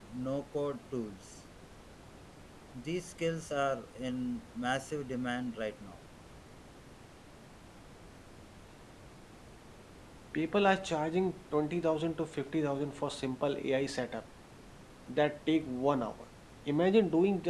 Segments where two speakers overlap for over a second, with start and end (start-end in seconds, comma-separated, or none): none